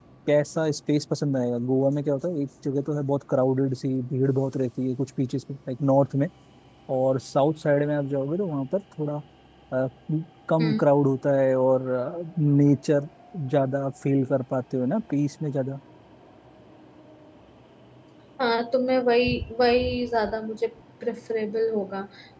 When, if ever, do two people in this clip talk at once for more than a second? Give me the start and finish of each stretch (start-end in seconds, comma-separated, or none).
none